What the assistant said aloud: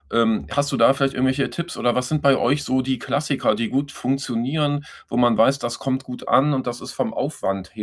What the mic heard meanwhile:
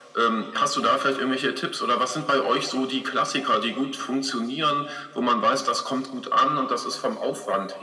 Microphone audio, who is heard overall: echo only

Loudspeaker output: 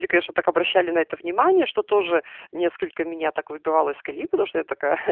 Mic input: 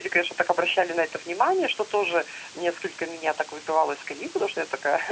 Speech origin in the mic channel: echo only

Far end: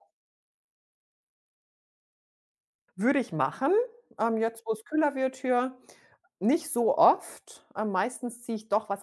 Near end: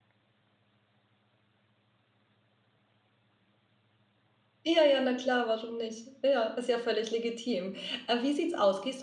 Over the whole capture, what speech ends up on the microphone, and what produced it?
user only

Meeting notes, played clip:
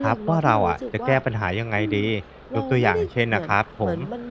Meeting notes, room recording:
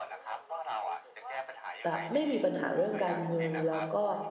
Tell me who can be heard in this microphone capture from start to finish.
both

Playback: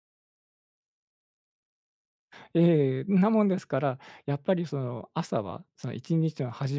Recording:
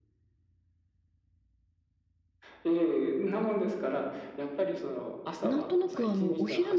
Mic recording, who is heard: both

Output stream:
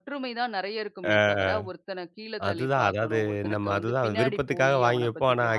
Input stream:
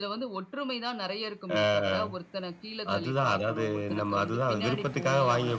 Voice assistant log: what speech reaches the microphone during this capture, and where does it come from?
echo only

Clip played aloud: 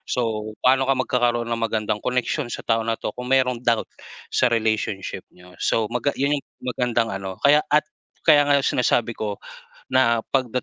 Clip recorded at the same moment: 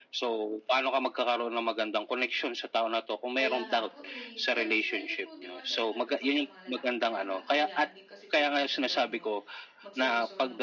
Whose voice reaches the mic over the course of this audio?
both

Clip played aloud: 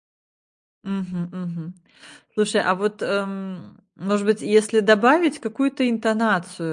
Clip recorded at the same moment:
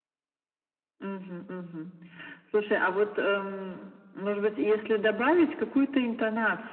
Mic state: echo only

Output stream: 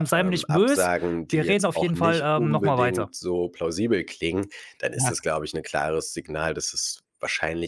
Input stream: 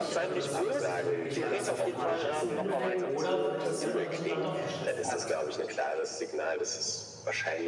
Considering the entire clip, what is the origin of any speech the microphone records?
both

